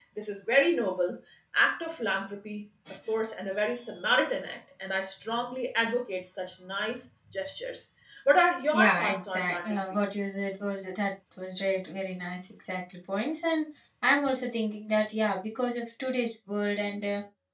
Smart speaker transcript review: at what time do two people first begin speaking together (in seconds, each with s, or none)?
8.7 s